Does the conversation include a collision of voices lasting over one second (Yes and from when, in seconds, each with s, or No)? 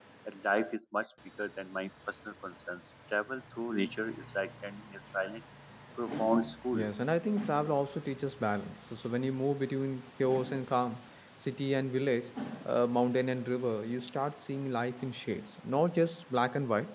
No